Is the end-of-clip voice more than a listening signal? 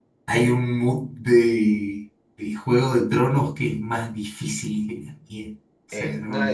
Yes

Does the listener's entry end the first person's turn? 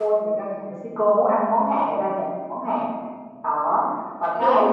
No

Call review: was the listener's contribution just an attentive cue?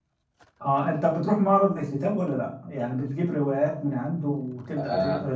No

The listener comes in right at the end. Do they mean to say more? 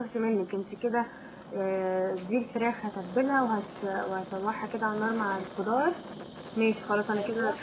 No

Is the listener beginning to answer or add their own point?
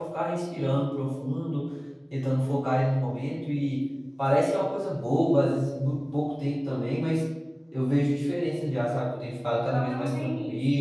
Yes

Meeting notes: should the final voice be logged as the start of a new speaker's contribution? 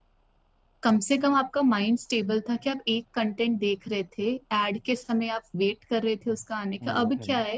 No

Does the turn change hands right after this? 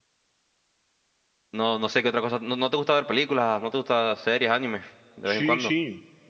Yes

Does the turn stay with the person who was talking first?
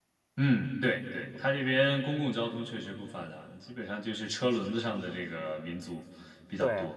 No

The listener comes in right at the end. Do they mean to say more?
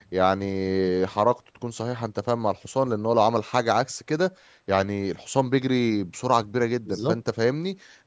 No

